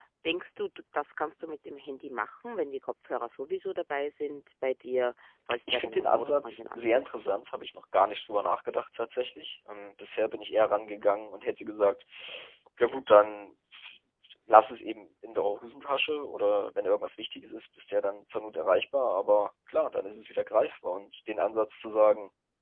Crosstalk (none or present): present